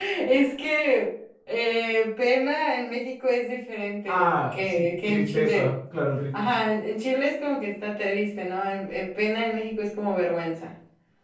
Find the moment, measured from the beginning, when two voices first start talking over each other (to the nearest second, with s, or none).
4 s